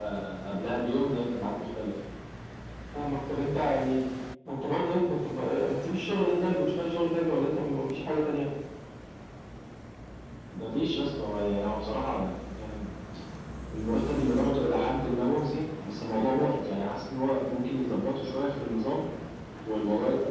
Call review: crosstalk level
none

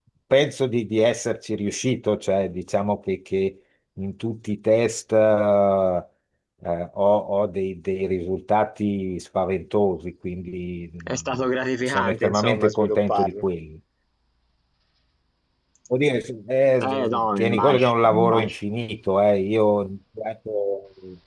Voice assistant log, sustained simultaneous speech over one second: present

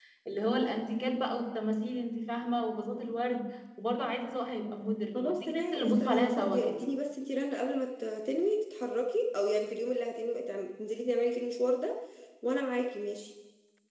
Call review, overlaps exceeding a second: present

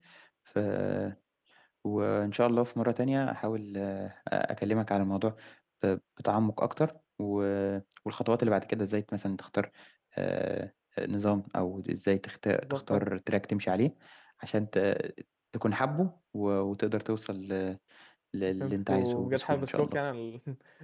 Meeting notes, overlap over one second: present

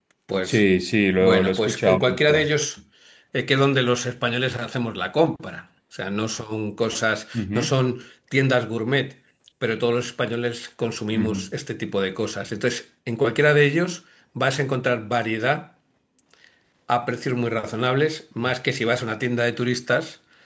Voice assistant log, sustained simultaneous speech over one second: present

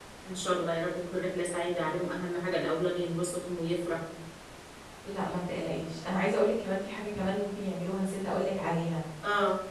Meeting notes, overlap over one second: none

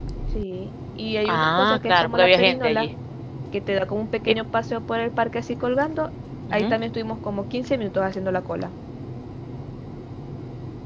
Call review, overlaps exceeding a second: present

